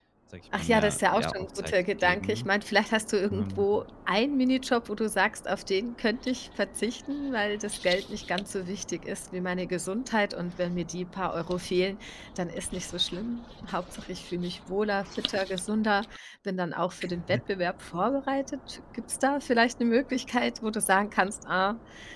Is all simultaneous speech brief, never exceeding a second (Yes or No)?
No